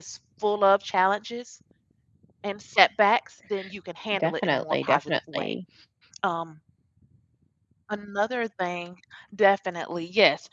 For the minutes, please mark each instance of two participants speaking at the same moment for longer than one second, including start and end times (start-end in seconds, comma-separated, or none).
4.2-5.5